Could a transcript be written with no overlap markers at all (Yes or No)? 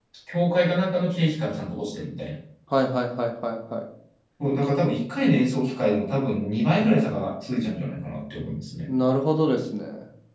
Yes